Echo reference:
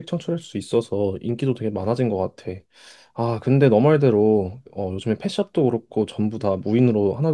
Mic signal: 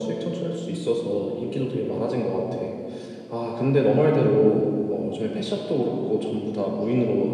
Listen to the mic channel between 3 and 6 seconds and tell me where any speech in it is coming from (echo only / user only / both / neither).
echo only